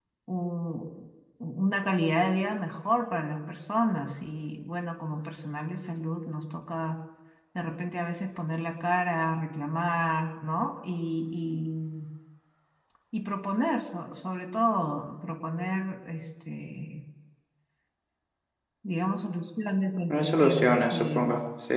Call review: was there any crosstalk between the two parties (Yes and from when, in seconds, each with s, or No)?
Yes, from 20.1 s